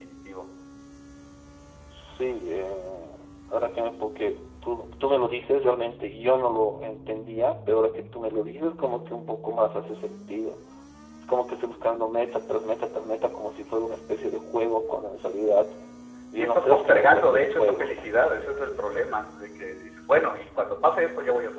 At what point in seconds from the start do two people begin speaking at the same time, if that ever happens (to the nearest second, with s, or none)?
16 s